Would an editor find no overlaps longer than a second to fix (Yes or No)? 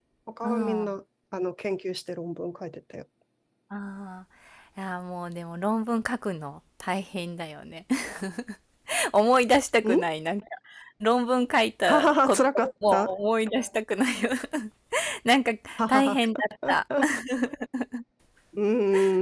No